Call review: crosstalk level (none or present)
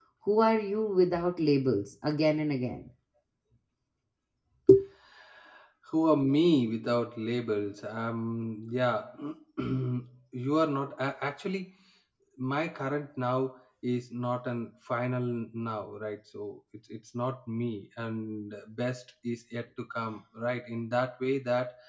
none